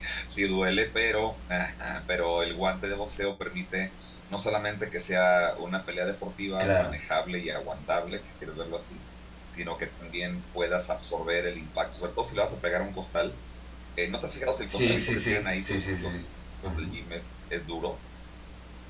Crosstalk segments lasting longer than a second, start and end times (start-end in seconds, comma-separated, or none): 14.7-16.2